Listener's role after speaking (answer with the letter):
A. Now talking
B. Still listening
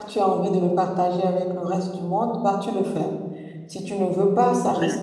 B